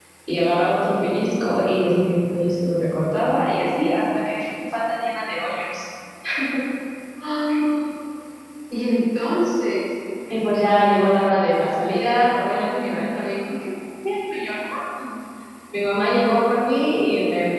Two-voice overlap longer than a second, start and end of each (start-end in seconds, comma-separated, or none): none